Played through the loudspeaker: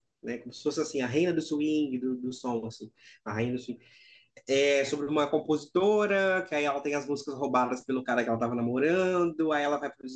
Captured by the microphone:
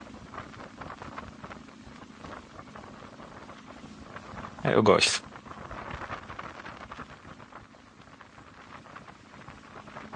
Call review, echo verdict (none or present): none